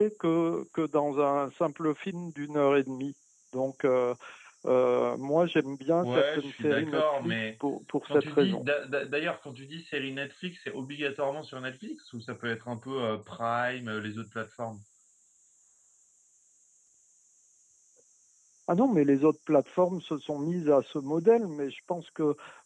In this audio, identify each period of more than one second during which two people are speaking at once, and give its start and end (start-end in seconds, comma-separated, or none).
6.0-7.5